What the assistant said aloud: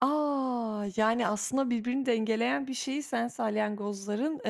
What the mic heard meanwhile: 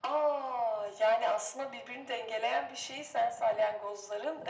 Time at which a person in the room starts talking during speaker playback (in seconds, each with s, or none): none